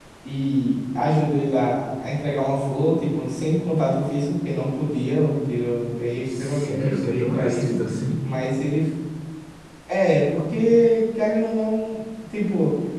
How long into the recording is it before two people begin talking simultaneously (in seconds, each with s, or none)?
6.4 s